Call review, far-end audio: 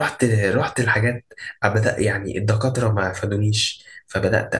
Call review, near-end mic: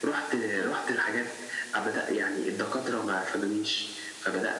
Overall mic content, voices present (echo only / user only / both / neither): echo only